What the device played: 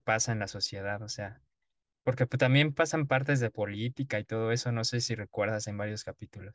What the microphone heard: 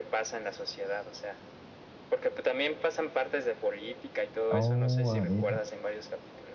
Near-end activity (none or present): present